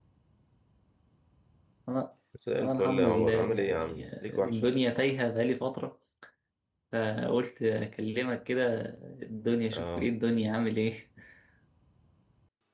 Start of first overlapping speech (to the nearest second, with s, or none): 3 s